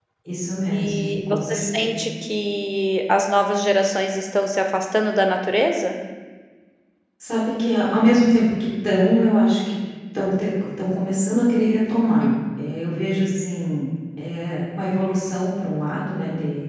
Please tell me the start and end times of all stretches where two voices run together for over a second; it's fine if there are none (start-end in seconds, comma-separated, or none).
0.7-1.9